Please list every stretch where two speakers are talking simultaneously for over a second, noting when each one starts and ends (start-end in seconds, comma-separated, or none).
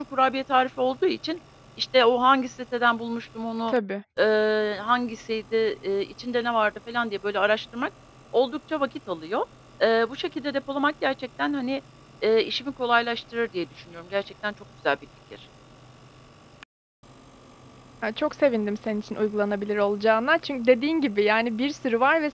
none